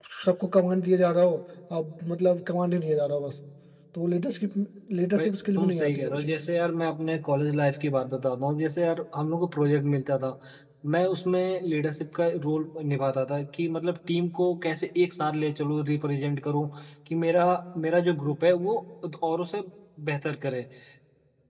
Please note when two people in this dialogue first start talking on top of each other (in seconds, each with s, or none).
5.2 s